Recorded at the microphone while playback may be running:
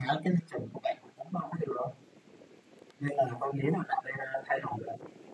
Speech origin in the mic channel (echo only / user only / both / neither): echo only